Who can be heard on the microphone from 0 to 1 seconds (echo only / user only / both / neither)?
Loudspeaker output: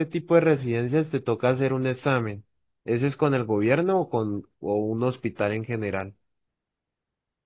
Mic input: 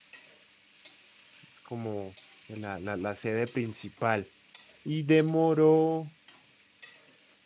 neither